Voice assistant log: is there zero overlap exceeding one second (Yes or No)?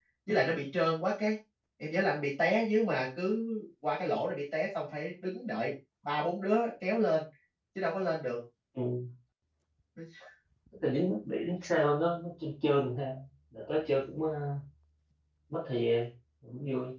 Yes